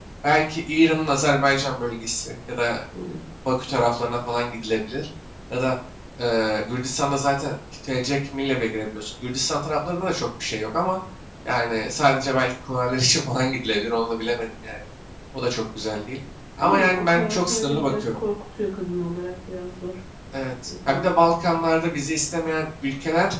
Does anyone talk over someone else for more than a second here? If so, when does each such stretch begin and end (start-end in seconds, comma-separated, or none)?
16.6-18.2